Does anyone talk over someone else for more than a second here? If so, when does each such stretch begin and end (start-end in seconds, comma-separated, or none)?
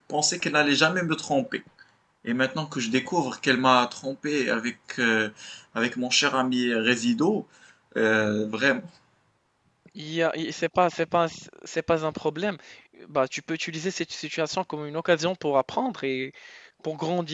none